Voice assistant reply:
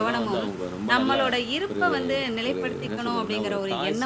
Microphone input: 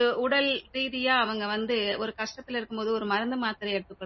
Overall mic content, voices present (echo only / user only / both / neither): user only